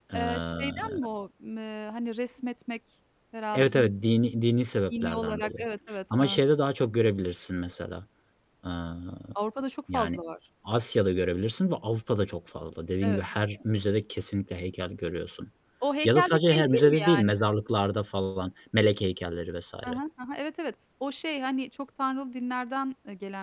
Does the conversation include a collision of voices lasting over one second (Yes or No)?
Yes